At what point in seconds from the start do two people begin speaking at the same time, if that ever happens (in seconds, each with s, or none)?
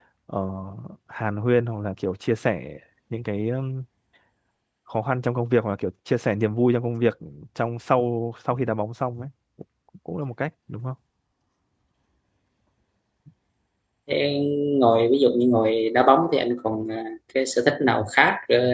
none